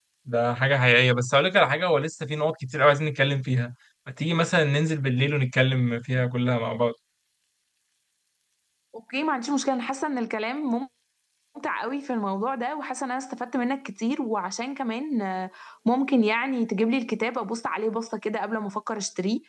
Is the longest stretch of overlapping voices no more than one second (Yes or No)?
Yes